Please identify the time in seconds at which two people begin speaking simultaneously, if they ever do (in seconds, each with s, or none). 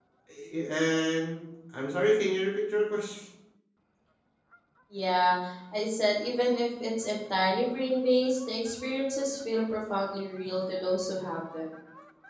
none